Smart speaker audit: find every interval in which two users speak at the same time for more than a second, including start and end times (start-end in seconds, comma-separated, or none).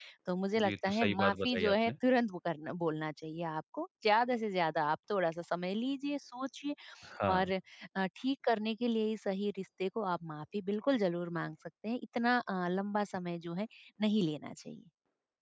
0.6-1.9